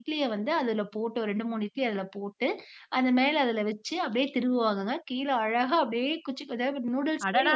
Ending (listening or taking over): taking over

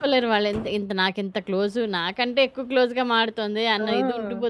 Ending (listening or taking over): taking over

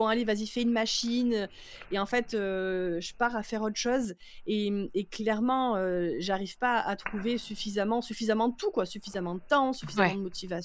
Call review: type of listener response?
listening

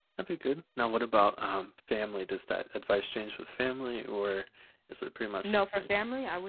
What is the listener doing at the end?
taking over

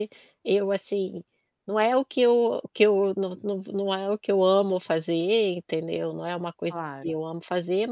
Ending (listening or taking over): listening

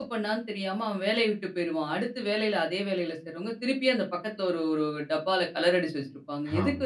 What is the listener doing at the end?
listening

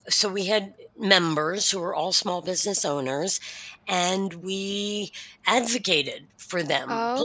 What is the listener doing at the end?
listening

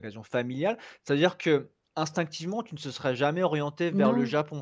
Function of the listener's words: listening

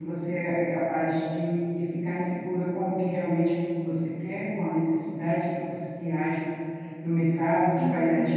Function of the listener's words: listening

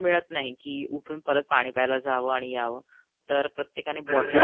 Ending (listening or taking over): taking over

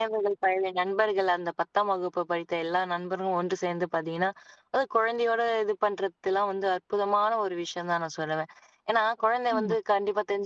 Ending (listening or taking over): listening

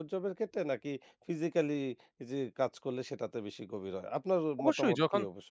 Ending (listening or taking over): taking over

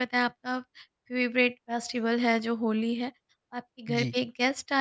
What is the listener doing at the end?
listening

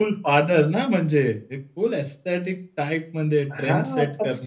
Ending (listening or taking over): taking over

